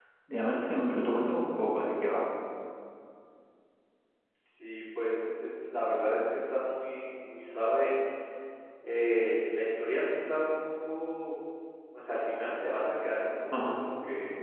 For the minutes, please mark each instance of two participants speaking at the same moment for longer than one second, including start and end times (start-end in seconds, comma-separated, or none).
none